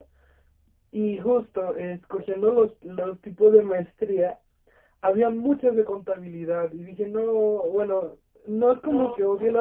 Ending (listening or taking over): listening